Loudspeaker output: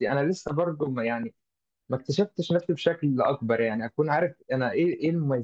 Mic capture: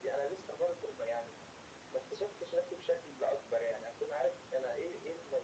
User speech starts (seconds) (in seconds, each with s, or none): none